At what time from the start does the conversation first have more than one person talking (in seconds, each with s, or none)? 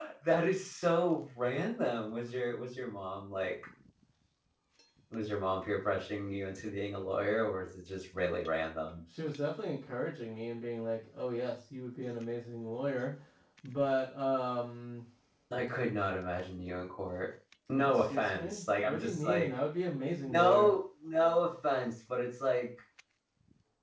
17.8 s